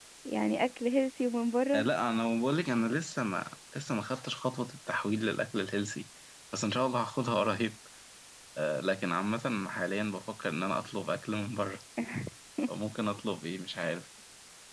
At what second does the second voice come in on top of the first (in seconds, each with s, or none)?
none